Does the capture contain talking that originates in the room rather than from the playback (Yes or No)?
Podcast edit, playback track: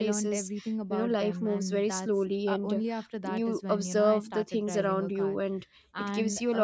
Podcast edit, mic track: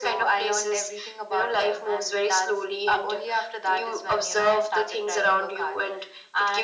No